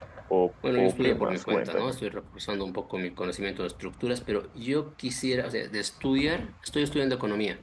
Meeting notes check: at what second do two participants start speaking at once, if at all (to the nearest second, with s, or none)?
1 s